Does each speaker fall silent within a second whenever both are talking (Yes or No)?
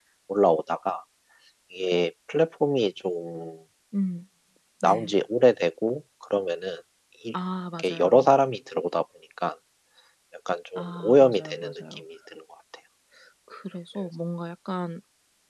No